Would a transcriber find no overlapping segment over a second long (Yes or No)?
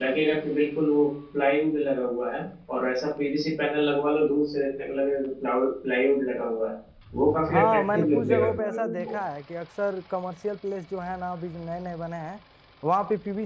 No